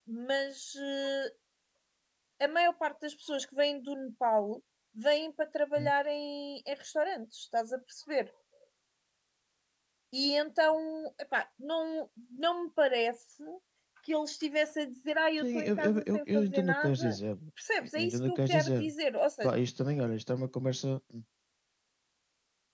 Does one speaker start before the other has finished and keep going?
Yes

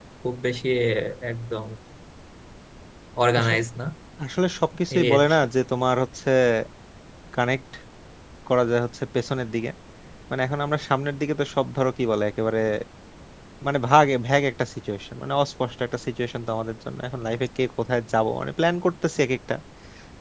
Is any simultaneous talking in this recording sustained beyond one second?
No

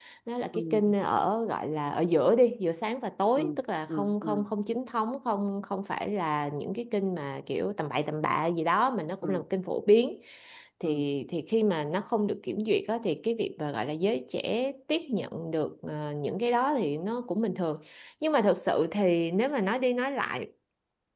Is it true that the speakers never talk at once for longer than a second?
Yes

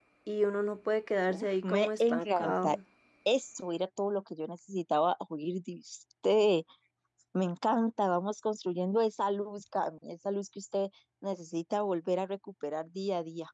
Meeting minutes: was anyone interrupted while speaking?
Yes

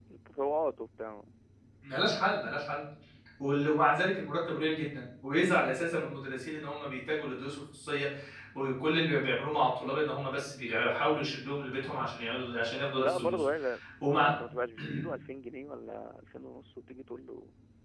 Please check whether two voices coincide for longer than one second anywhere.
No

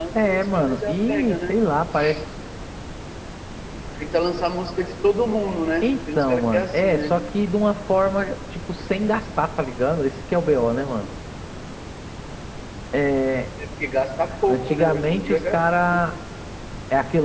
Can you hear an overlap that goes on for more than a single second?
Yes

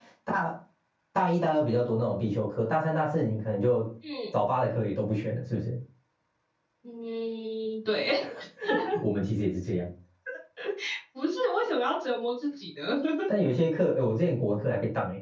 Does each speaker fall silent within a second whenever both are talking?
Yes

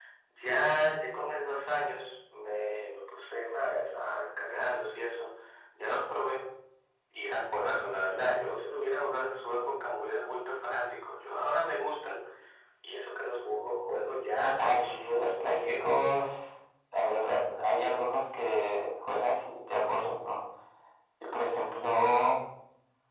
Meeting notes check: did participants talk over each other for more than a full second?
Yes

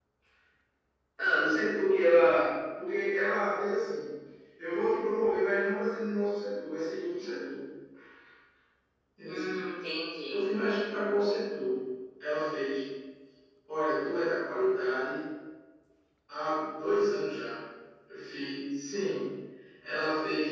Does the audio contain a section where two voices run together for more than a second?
No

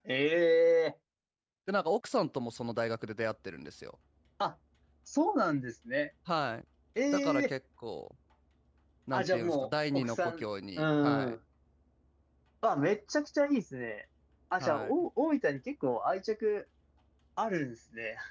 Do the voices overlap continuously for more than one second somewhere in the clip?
Yes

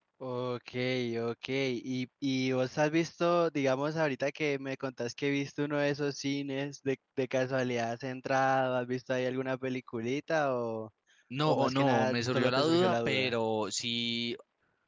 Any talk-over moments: Yes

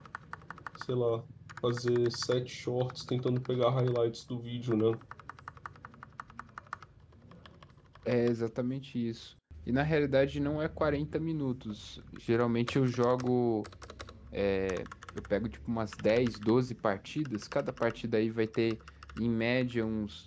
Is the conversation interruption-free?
Yes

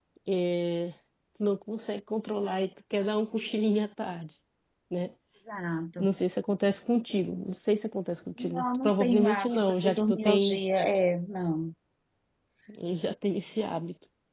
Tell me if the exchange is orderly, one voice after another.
No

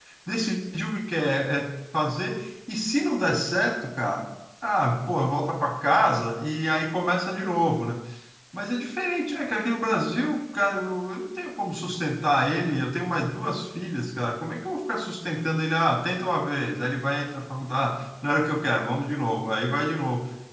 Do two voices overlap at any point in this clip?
No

